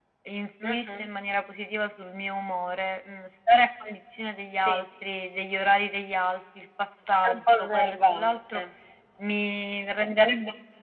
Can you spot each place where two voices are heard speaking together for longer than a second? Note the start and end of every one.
7.2-8.6

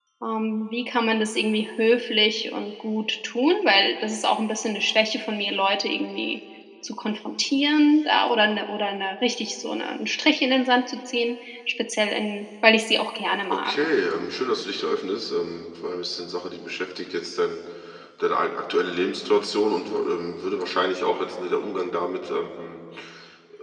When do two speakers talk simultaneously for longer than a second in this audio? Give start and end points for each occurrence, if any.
none

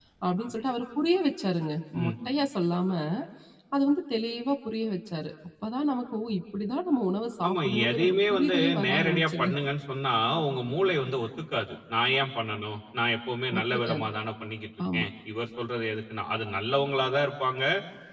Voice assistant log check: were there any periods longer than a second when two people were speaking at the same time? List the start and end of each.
7.5-9.5

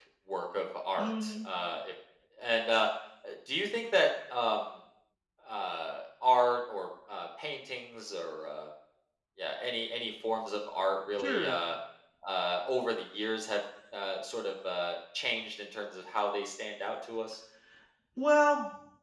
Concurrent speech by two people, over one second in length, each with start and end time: none

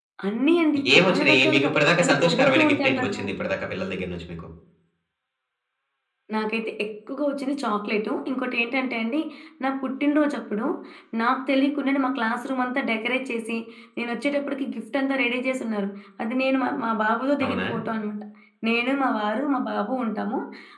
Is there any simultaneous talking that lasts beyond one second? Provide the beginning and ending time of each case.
0.9-3.2

